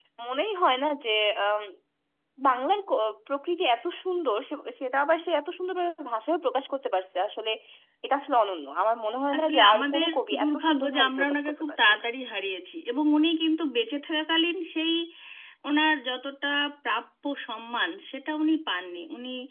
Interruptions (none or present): present